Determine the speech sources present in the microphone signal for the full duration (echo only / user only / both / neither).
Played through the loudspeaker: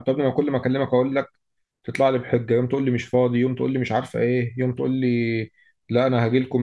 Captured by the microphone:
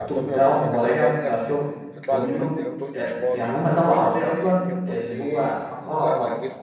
both